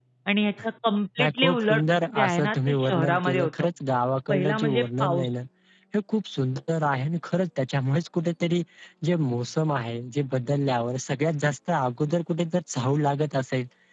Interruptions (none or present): present